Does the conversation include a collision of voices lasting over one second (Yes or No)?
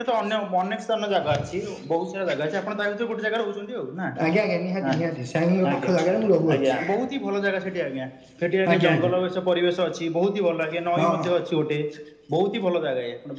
No